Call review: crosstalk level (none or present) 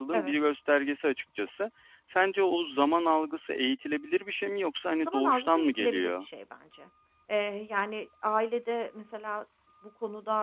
present